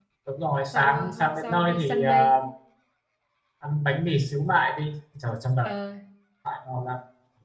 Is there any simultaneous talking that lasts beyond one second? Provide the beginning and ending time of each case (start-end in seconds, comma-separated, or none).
0.7-2.4